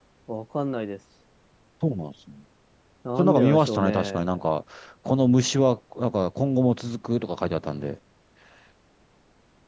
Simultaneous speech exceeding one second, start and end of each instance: 3.2-4.4

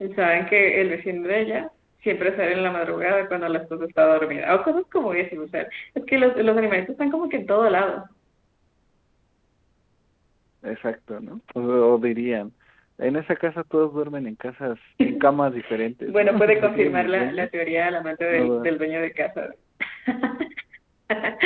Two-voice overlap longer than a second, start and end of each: 16.1-17.5

